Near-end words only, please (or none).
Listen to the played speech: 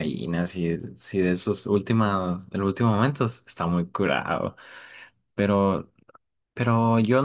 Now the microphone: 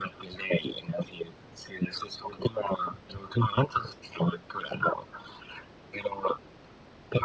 none